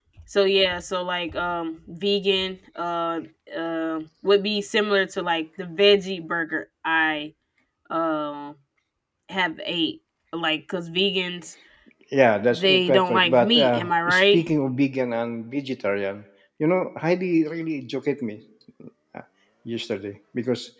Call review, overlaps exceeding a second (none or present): present